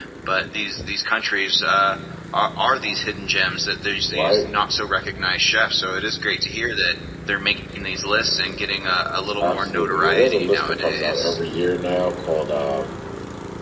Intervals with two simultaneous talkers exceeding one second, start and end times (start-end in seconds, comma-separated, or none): 9.4-11.4